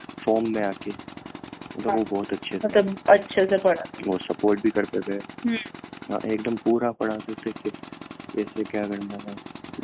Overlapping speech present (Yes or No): No